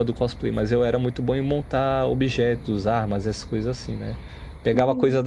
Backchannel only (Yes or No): Yes